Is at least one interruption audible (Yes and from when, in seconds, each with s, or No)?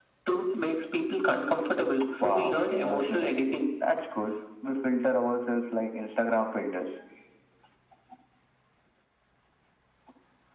Yes, from 2.2 s